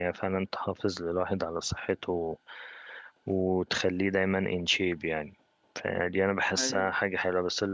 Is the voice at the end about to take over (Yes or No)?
No